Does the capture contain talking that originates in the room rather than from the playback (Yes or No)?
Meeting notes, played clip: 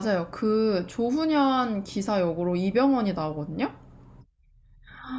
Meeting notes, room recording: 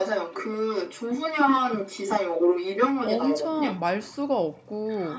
Yes